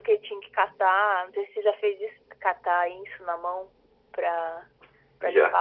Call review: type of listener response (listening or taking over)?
listening